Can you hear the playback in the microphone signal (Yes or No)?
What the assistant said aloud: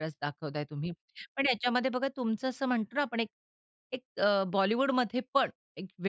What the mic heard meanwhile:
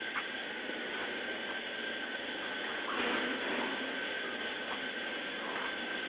No